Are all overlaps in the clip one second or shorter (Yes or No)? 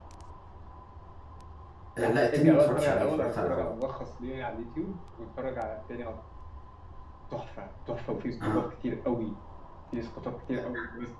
No